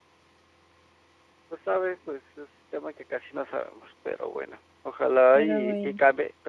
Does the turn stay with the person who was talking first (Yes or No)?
Yes